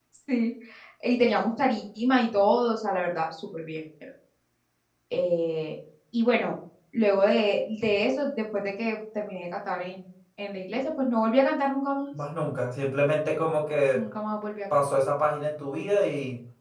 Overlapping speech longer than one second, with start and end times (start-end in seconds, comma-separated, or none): none